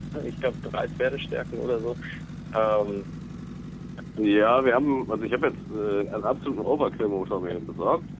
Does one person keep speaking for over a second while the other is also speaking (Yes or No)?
No